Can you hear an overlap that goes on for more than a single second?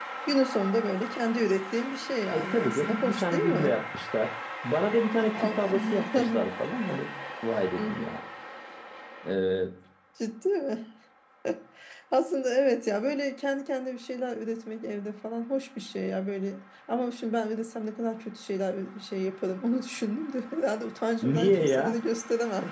Yes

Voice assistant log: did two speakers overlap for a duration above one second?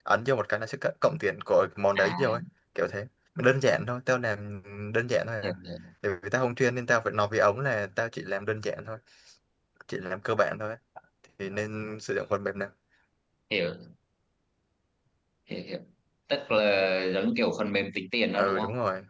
No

